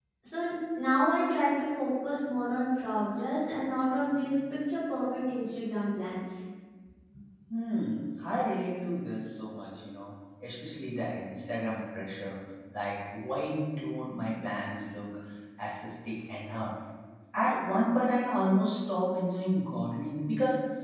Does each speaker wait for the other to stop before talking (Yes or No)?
Yes